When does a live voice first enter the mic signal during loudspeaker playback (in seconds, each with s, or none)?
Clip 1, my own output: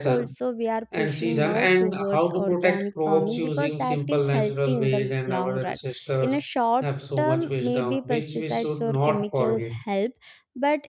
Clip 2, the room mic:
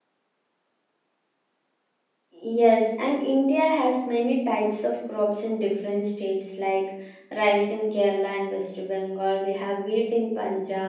2.4 s